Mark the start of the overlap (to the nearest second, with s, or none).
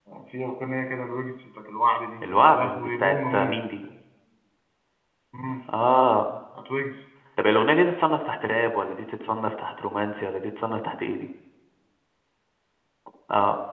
2 s